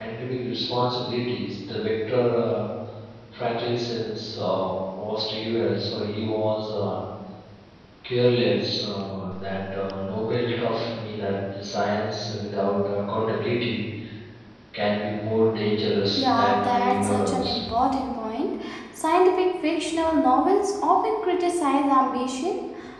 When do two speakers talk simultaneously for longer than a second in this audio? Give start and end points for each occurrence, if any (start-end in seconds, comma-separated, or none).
16.2-17.6